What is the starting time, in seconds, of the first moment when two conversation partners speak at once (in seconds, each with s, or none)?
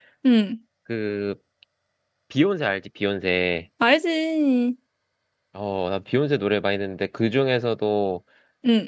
none